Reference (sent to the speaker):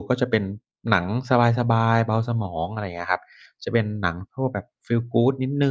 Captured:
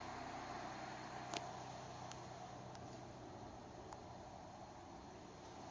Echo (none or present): none